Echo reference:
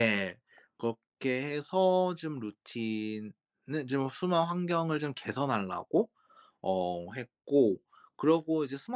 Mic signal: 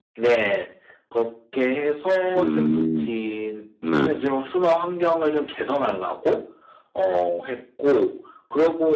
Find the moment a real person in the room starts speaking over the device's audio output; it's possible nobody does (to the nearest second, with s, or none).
2 s